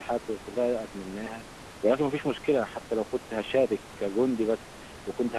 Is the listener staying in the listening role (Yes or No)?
Yes